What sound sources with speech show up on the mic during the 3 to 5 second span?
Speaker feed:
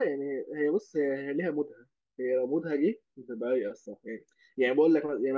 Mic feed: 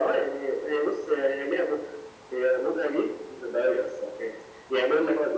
echo only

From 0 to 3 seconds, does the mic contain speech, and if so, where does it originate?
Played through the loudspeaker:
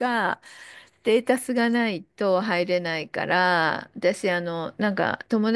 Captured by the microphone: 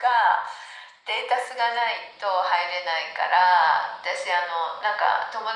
echo only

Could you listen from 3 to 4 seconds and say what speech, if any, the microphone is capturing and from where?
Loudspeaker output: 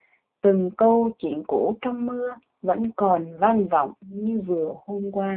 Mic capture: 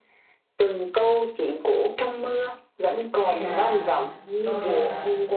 both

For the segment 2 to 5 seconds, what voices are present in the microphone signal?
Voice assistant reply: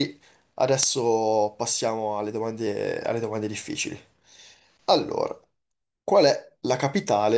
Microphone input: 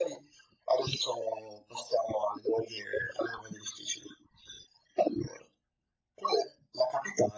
echo only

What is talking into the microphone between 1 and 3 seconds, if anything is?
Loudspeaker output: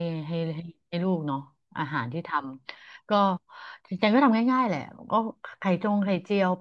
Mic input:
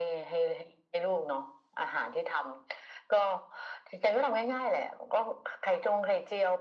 echo only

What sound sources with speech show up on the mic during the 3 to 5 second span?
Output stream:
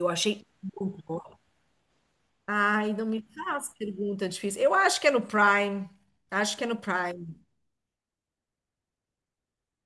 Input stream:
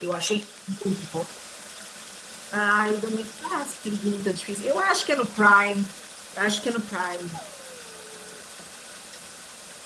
echo only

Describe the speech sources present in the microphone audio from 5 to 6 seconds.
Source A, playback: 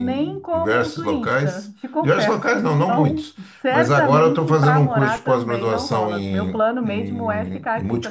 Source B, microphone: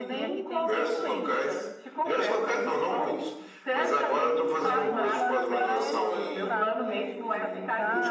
both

